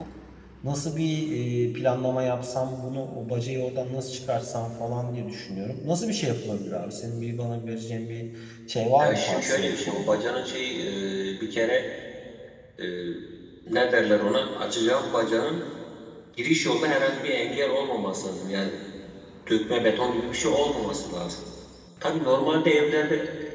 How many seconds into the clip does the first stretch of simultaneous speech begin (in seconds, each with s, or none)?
9.0 s